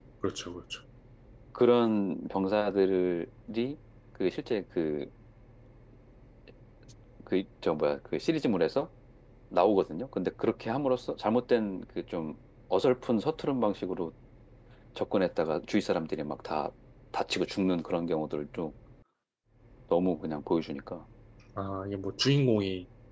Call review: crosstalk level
none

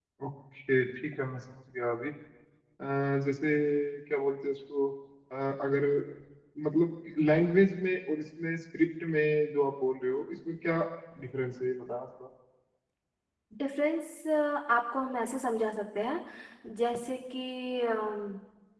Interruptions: none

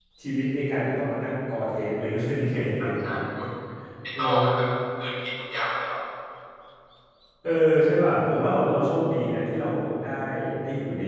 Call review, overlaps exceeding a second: none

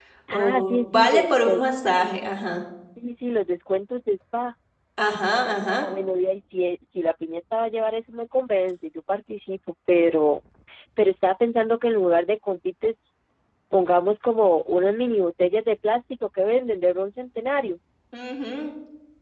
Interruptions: present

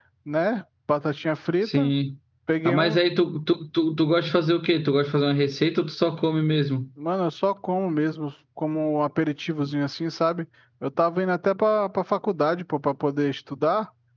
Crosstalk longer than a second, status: none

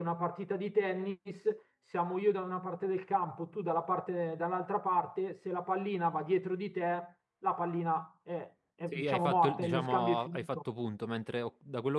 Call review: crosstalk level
present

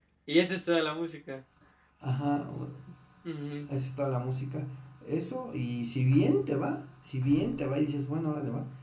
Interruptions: none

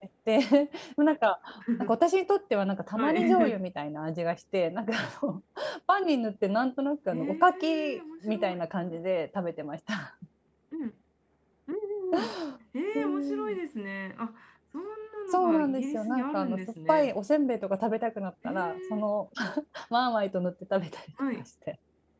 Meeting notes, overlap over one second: present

